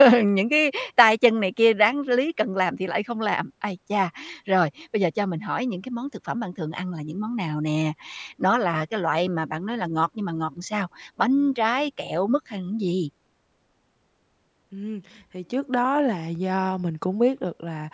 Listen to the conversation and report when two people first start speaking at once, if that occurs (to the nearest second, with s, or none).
none